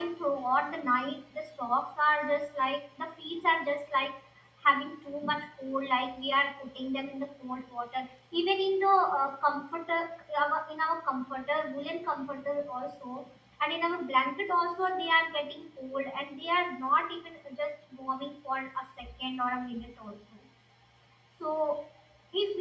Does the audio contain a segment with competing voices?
No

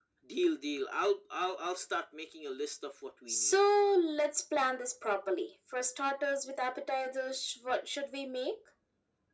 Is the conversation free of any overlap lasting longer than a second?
Yes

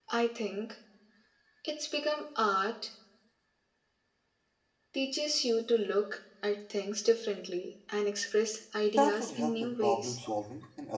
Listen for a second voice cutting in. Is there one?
Yes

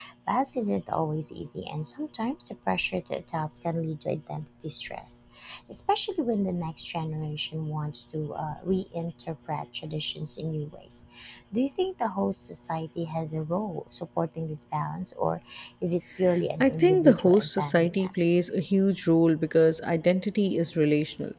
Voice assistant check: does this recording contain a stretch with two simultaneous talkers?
Yes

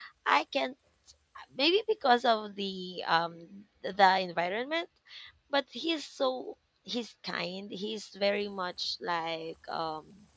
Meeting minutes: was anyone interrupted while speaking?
No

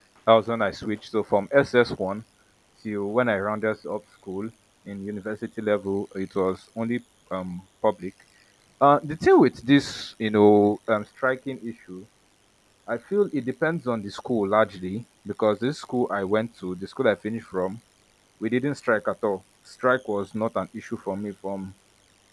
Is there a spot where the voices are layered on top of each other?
No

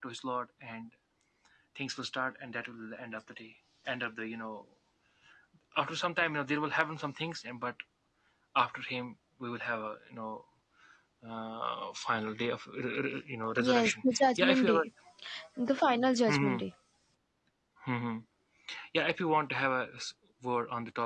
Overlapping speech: Yes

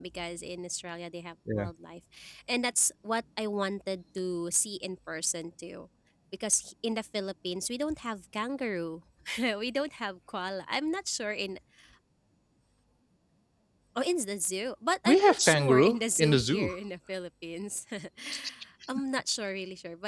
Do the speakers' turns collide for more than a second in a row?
Yes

